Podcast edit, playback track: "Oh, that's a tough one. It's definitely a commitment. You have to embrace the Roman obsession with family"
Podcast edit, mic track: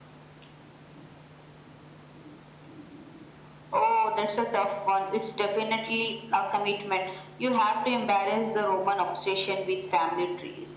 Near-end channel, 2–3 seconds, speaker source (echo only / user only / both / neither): neither